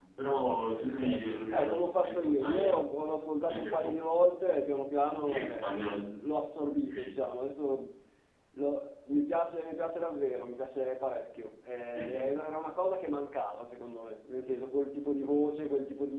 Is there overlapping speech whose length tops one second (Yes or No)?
Yes